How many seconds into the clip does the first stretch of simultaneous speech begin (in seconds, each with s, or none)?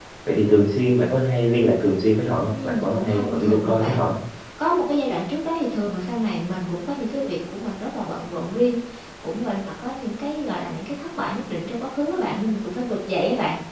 2.5 s